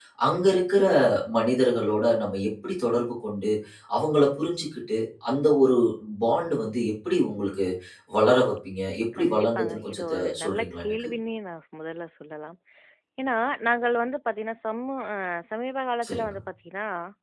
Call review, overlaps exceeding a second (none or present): present